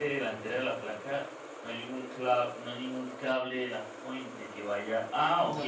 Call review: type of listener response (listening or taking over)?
listening